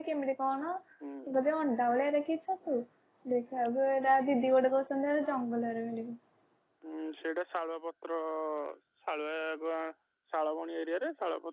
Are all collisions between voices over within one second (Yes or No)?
Yes